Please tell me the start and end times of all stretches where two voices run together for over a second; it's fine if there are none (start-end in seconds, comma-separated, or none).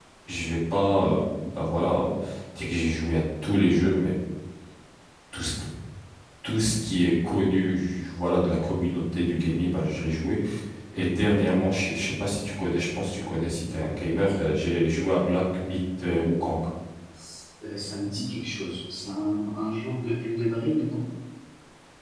none